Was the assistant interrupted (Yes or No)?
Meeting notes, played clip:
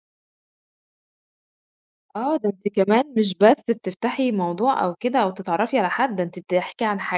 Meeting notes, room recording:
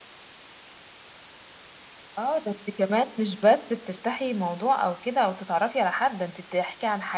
No